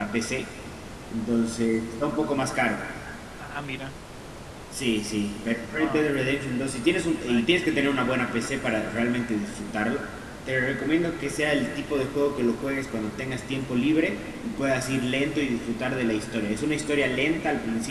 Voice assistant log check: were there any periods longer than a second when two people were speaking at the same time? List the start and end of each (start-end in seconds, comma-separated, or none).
none